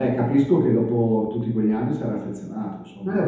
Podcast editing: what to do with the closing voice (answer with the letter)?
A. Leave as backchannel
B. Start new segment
B